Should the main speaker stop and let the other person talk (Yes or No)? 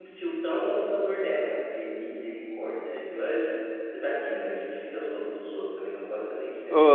Yes